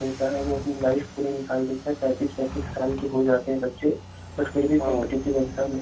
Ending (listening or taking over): listening